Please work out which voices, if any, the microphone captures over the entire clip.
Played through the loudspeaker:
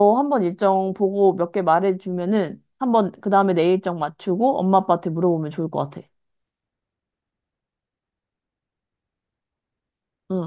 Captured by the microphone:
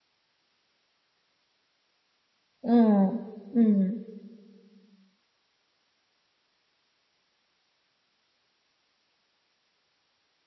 user only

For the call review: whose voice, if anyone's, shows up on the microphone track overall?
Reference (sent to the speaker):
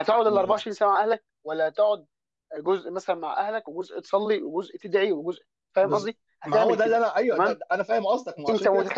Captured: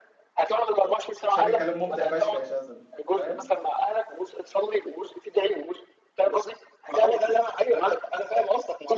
both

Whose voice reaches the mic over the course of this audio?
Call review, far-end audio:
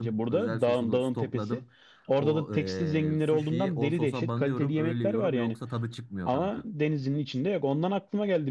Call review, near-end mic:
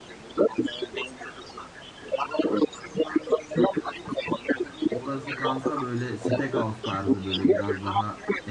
both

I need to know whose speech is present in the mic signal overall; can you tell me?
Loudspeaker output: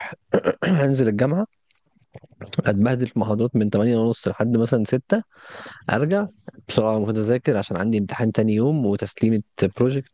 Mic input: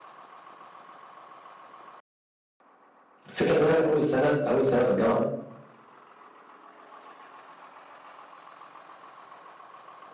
user only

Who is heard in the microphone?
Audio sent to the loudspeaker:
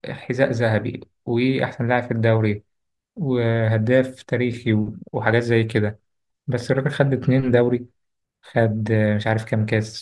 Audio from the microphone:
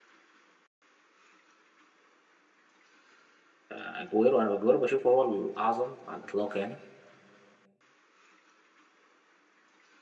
user only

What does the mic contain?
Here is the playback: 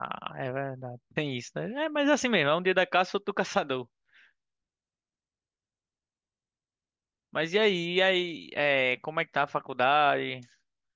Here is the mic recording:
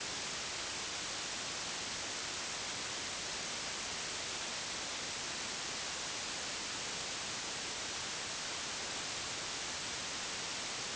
neither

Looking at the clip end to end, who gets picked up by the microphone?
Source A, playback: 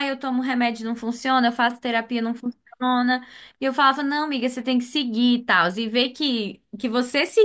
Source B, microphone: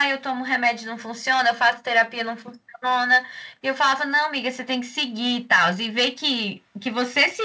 echo only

